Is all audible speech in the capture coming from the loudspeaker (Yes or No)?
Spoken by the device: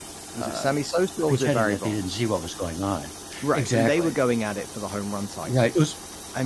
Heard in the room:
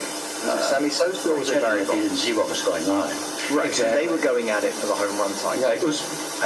Yes